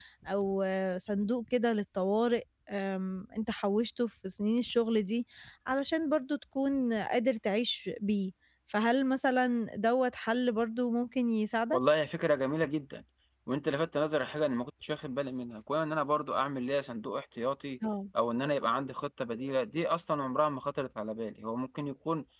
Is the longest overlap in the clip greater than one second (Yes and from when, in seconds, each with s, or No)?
No